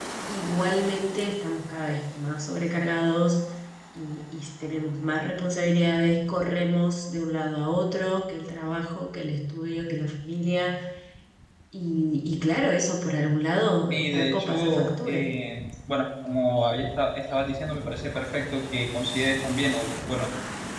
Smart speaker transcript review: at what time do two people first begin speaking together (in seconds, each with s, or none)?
13.9 s